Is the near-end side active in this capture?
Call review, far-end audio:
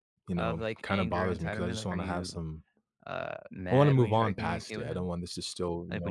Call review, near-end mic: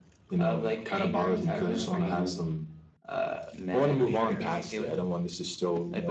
Yes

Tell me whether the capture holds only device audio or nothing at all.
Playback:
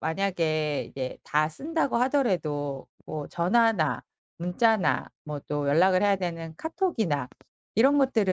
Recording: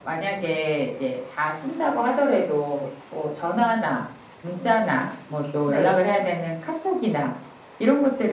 No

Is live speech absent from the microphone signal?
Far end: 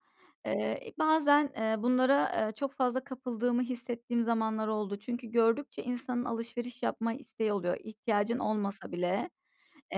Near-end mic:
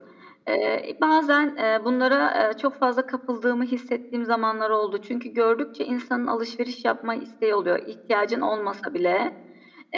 Yes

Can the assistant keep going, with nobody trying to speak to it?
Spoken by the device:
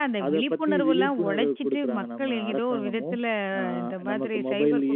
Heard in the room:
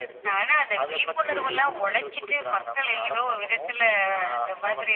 No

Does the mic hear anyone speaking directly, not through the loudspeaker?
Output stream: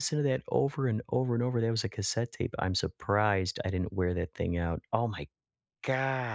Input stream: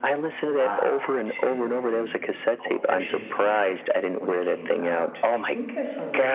Yes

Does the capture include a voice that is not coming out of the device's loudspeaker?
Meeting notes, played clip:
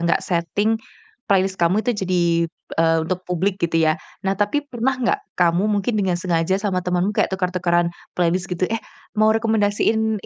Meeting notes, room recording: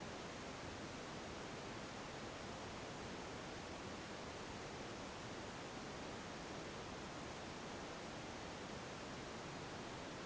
No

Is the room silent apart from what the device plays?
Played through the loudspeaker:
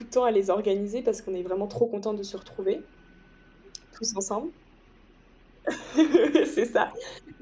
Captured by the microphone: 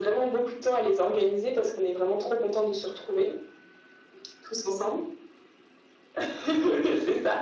Yes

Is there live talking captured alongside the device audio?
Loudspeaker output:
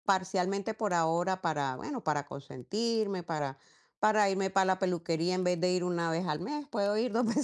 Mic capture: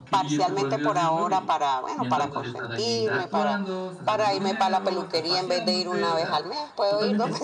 Yes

